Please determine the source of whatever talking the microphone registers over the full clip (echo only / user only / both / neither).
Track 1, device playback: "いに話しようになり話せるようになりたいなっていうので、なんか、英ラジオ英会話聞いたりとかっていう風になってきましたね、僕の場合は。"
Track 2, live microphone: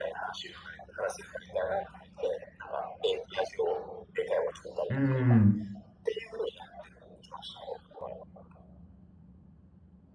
both